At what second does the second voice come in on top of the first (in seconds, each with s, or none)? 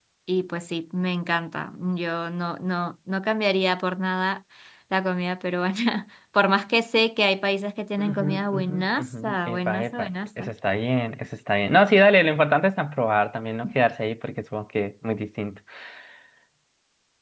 8.0 s